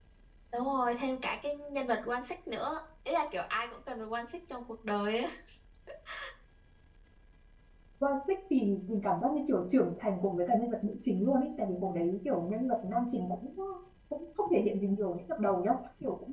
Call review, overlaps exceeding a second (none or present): none